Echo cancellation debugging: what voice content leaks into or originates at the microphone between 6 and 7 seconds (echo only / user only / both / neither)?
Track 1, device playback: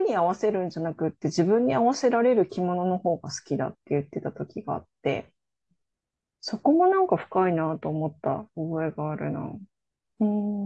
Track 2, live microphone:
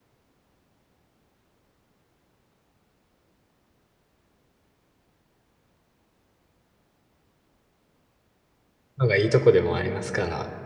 neither